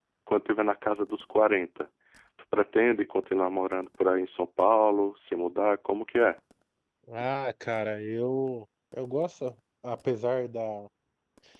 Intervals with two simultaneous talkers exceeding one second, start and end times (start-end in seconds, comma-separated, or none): none